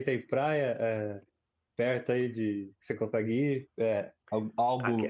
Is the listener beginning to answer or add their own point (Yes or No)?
No